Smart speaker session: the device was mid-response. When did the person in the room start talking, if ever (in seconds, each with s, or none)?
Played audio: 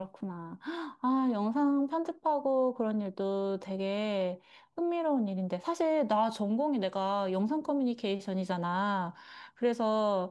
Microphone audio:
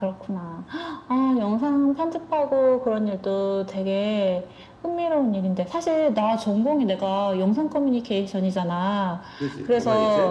9.3 s